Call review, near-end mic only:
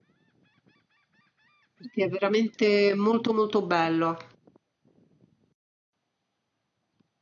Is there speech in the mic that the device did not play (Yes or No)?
Yes